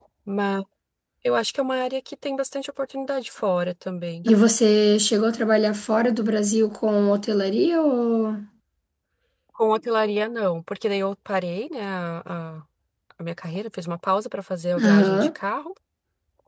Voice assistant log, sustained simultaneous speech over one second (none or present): none